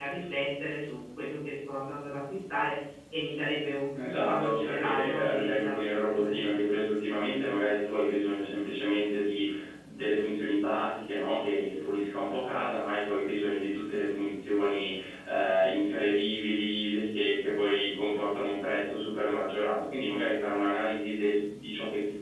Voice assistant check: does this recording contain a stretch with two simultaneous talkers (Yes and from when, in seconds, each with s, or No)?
Yes, from 3.9 s